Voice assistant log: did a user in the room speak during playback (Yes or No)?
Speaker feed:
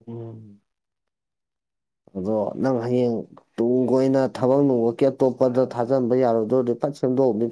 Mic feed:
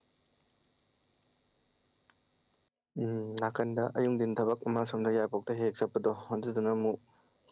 Yes